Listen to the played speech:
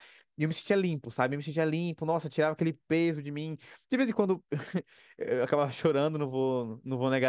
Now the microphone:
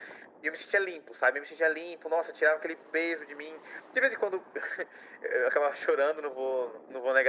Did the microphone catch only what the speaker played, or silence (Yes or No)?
Yes